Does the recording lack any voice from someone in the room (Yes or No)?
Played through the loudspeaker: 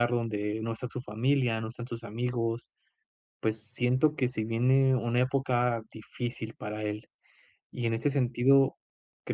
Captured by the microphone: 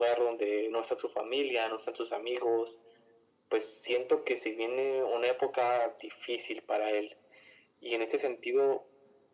Yes